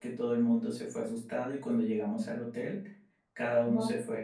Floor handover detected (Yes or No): No